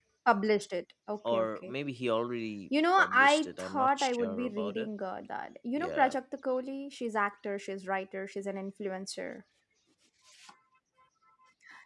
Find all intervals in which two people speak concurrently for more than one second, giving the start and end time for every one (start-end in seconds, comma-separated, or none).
3.0-4.9